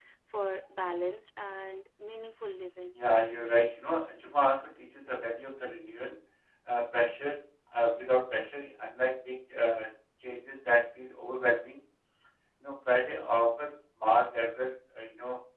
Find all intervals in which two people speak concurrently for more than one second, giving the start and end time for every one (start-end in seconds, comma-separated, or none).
none